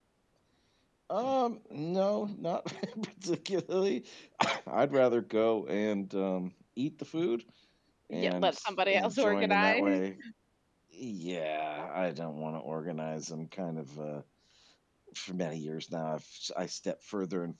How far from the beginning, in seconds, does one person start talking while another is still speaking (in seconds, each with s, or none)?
8.1 s